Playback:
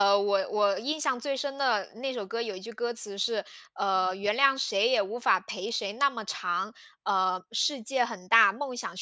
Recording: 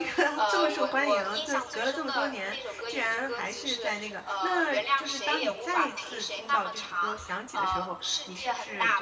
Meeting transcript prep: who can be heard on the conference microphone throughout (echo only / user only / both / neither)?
both